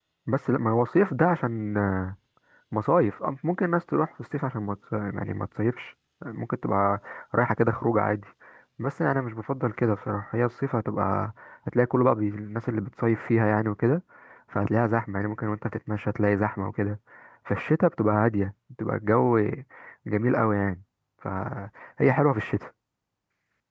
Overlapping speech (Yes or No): No